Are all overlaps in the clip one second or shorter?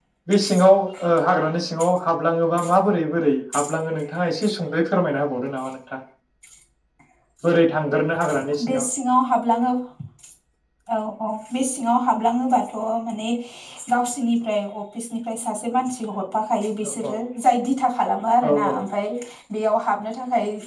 Yes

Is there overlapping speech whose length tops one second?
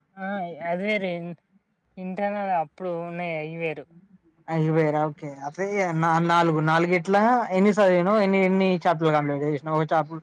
No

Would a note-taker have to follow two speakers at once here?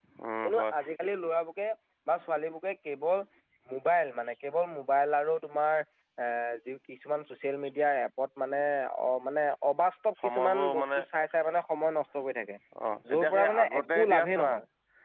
Yes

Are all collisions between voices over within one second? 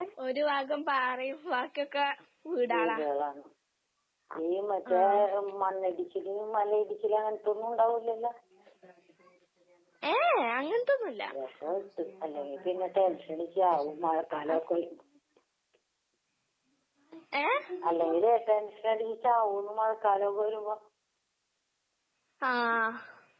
Yes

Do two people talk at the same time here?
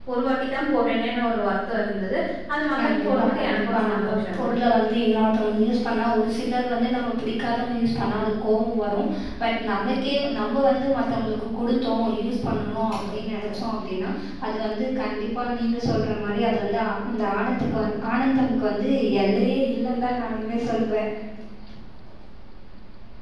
Yes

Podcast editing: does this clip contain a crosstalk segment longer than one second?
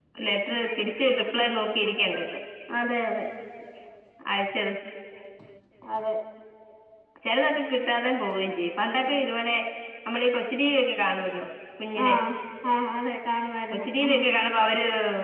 No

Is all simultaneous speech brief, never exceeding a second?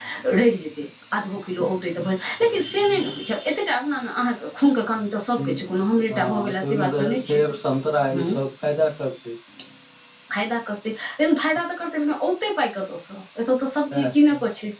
No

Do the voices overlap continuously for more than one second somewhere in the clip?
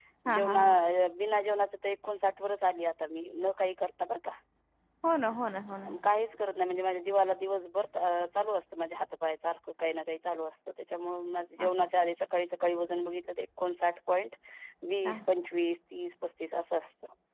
No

